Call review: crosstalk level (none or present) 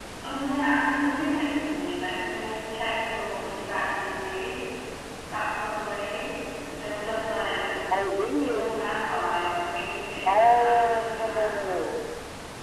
present